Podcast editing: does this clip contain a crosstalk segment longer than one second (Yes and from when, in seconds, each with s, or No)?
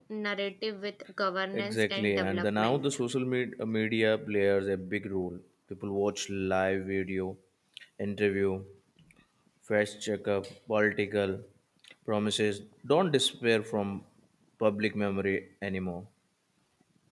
Yes, from 1.5 s